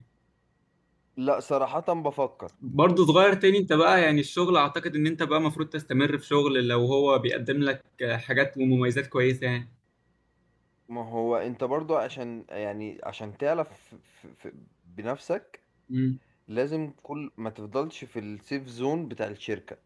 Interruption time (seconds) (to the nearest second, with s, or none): none